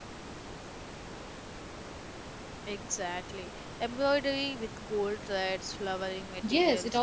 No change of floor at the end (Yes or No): No